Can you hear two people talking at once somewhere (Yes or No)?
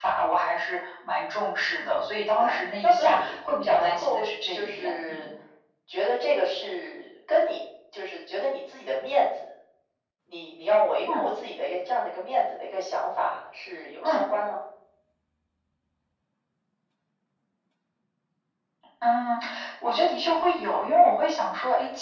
Yes